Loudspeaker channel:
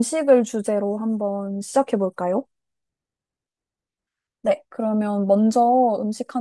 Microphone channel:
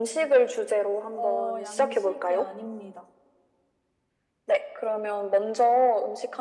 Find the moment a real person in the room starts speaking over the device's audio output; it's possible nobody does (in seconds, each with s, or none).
1.1 s